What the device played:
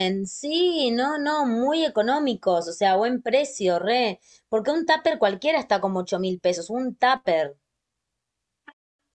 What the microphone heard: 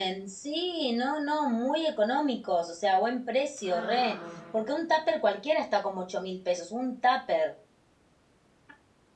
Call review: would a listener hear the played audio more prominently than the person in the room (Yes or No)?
Yes